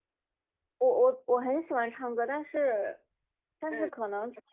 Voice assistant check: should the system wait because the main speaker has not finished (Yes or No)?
Yes